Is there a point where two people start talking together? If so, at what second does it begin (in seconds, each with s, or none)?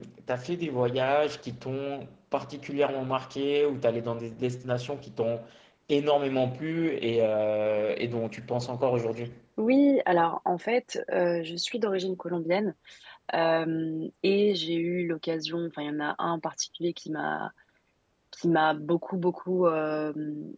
none